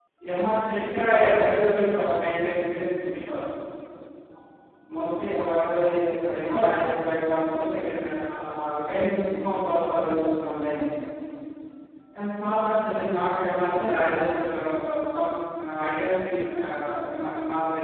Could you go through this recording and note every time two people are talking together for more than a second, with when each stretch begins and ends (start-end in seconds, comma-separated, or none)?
0.8-2.1